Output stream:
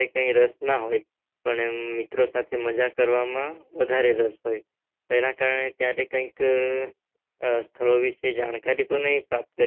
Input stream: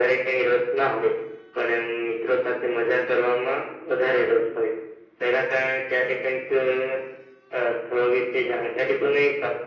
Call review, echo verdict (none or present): present